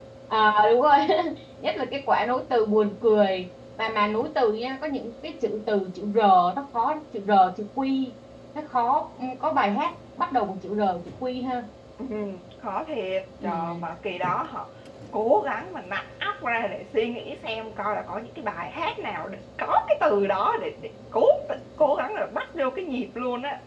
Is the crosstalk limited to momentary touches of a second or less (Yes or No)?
Yes